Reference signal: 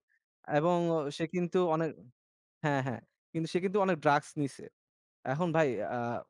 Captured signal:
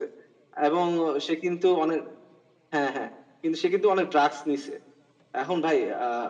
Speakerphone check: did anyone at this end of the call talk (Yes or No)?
No